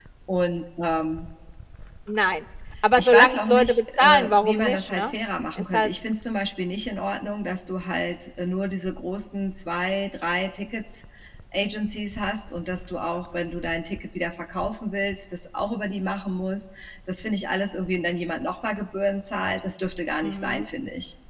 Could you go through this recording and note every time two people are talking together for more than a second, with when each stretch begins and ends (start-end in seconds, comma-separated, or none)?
3.0-5.1